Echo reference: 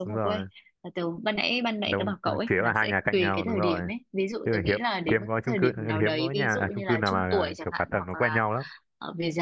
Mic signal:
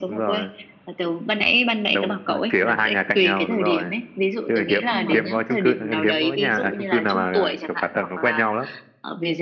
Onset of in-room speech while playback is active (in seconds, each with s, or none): 4.9 s